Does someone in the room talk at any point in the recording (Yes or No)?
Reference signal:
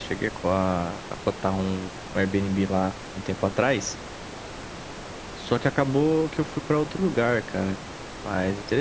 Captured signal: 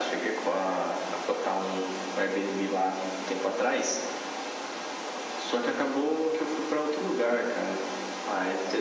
No